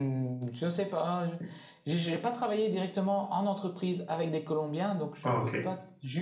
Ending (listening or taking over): listening